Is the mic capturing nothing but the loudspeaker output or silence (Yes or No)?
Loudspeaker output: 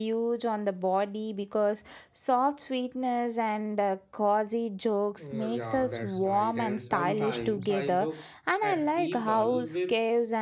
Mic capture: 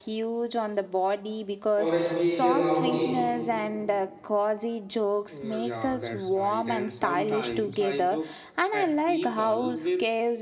No